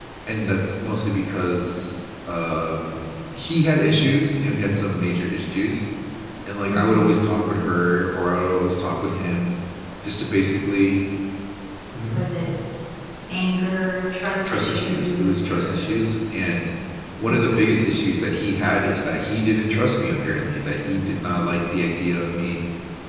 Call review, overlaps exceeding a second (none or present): present